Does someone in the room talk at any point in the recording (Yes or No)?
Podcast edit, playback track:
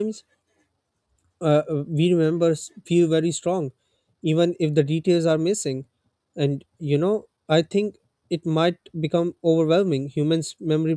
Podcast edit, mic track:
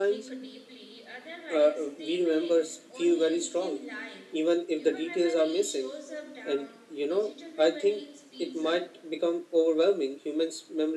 Yes